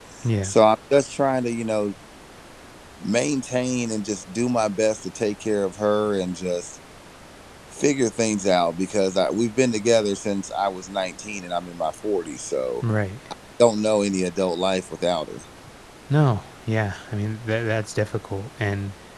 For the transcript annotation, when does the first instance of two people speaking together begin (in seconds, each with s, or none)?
none